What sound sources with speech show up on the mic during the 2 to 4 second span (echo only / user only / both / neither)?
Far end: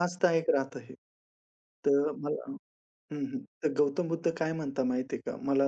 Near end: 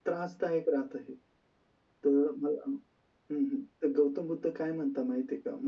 echo only